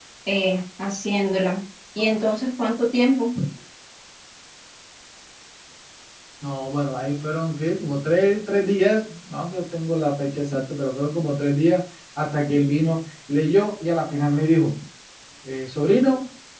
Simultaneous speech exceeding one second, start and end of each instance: none

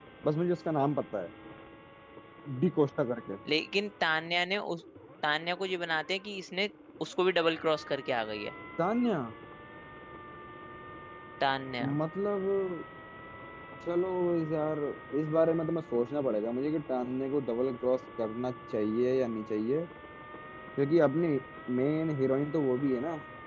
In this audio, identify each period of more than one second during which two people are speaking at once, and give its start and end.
none

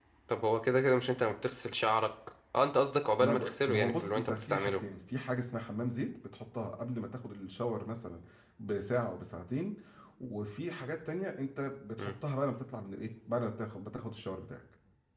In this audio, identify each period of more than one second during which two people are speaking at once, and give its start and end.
3.2-4.8

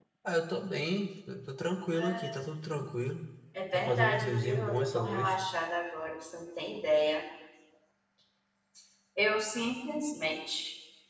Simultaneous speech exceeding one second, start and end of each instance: 3.7-5.4

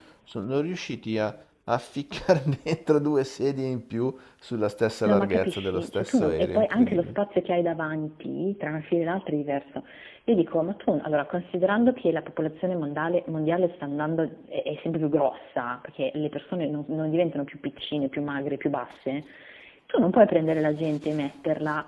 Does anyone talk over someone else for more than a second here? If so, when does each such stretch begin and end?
5.0-7.2

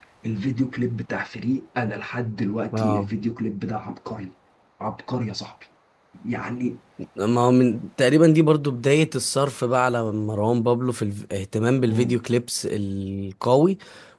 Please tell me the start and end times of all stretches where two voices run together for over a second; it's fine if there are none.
none

